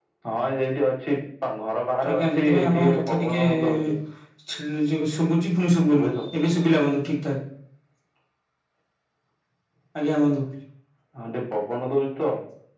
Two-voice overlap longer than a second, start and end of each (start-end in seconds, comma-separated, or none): 2.1-3.9